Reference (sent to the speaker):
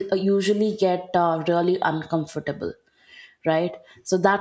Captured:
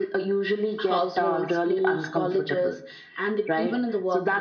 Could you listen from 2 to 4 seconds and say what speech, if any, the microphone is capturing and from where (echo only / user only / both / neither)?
both